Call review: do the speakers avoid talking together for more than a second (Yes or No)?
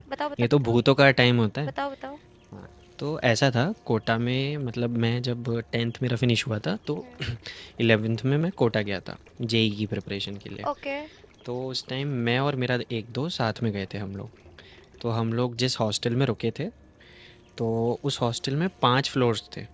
Yes